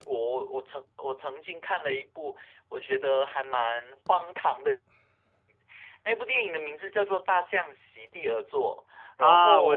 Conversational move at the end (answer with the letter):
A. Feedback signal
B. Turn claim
B